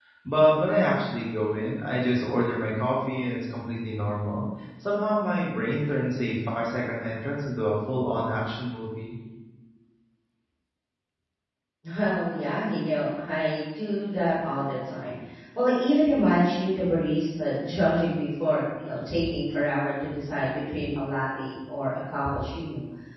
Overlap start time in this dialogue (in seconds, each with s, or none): none